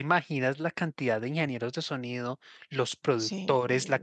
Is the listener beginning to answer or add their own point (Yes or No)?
No